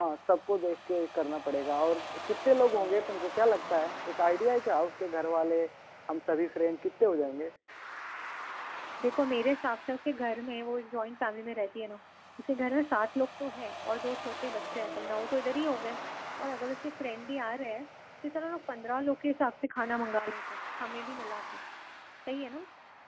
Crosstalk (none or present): none